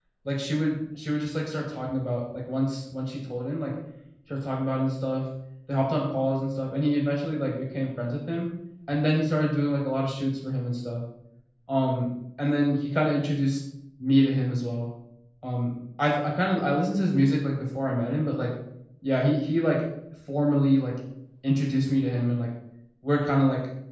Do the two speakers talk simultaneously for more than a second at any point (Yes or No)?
No